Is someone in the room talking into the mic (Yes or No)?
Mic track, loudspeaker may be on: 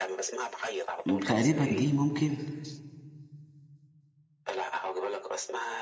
Yes